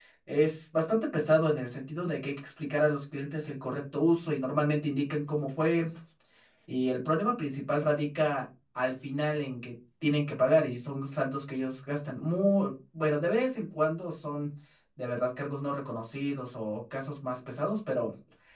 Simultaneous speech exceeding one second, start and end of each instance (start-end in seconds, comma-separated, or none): none